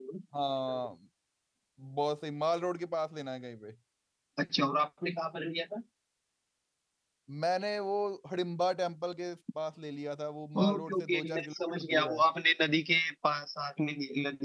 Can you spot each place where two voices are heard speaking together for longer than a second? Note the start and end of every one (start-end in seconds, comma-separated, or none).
10.6-12.2